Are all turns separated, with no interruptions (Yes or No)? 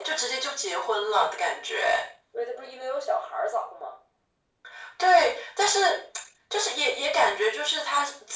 Yes